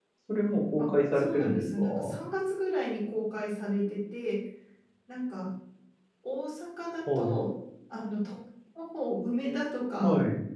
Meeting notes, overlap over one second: present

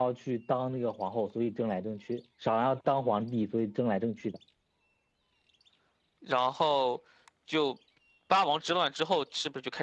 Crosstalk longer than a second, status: none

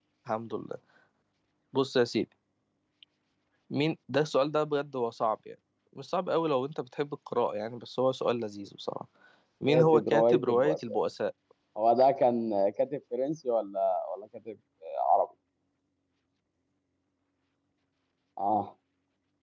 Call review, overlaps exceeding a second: present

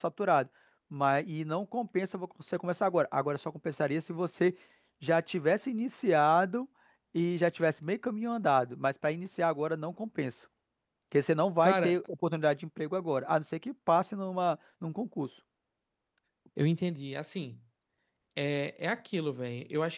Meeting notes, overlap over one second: none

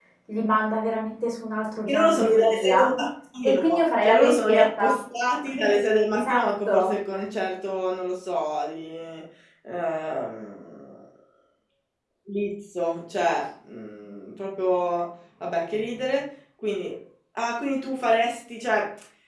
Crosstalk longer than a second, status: present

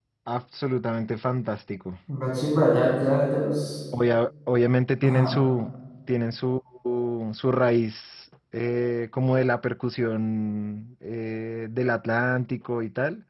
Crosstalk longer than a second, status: none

